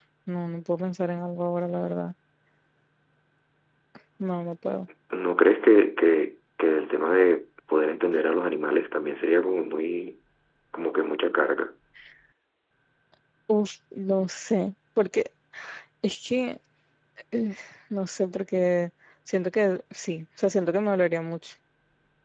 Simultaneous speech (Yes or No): No